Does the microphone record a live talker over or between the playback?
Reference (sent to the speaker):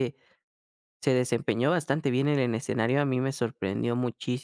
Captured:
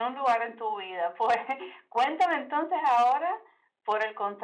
Yes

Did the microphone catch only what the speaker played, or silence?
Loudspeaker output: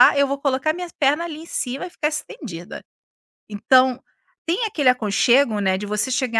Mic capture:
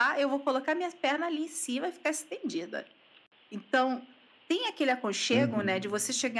No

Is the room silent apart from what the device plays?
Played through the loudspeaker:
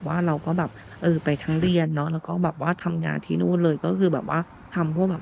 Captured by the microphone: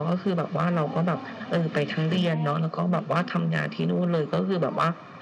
No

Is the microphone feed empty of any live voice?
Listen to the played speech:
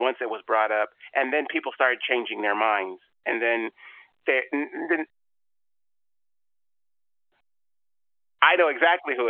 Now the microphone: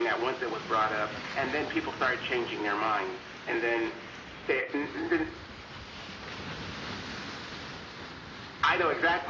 Yes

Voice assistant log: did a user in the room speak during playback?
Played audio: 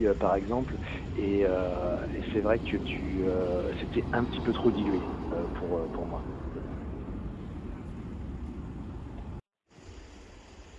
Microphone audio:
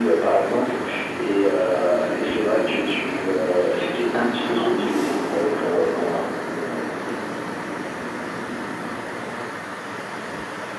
No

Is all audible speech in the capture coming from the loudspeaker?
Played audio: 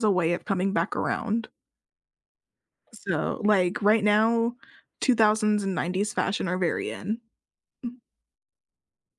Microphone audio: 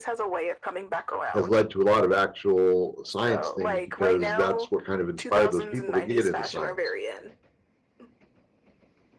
No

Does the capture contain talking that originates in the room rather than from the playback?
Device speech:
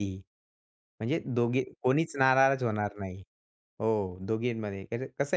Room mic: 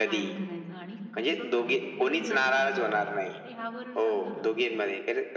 Yes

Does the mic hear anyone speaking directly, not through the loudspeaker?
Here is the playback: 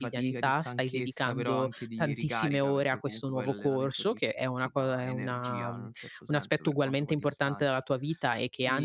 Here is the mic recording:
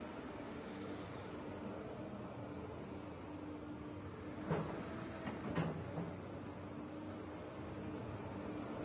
No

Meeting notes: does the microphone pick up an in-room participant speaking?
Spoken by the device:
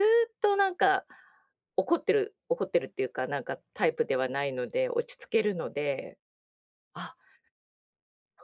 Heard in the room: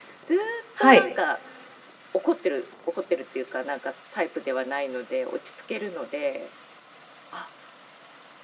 Yes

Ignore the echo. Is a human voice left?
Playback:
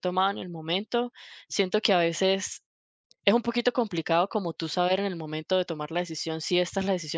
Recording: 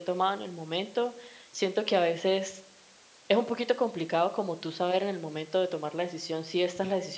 No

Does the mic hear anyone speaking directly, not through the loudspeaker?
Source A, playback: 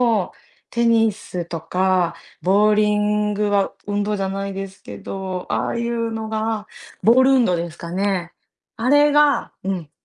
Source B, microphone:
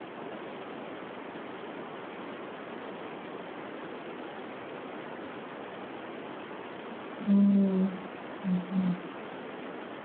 Yes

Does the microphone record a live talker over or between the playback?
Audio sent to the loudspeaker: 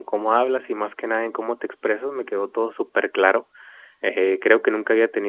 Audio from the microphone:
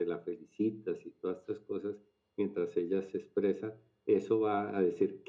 Yes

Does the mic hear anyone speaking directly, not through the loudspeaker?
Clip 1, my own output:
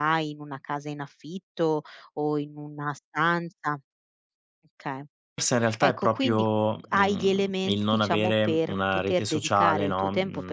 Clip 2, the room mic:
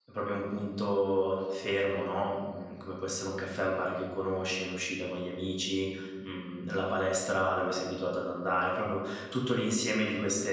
Yes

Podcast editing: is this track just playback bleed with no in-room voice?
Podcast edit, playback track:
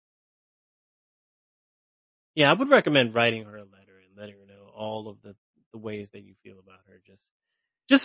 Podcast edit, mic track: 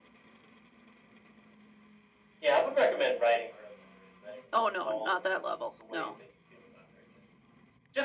No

